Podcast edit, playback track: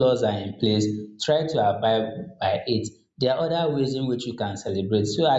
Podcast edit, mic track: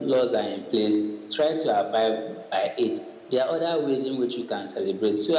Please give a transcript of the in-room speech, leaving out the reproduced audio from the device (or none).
none